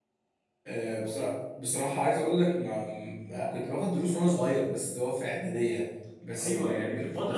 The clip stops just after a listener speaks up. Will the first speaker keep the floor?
No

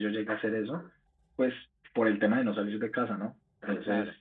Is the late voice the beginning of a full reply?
No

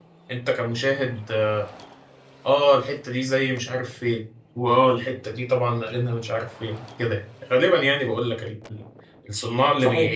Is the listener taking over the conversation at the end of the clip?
Yes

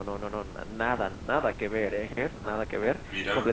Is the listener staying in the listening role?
Yes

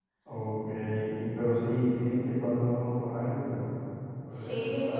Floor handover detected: Yes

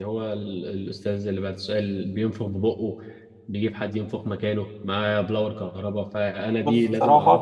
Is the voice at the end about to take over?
No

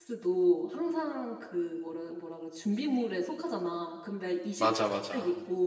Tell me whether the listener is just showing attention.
Yes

